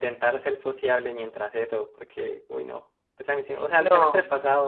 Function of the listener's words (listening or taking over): listening